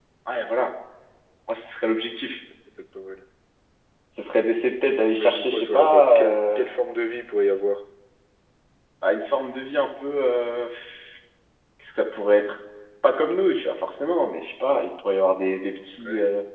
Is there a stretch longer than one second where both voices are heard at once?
Yes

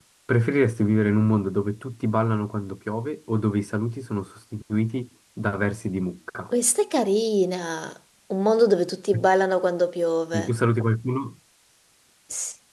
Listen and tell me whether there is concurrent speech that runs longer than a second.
No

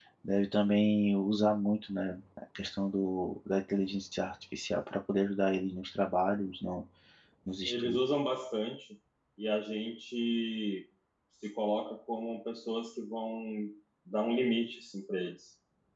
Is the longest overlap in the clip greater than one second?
No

